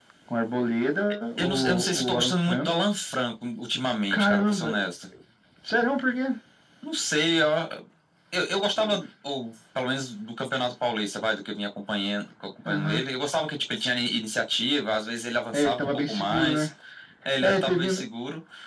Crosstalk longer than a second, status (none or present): present